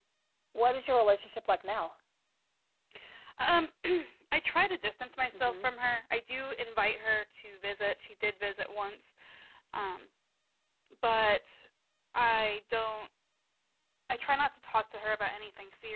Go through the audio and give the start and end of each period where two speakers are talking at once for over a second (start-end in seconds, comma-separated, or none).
none